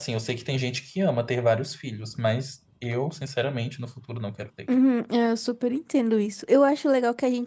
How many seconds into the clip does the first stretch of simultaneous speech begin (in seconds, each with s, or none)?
none